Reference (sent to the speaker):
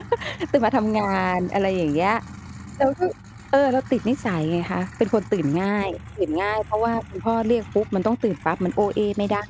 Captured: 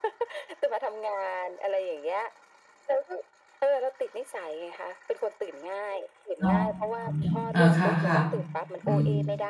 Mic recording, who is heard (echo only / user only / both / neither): both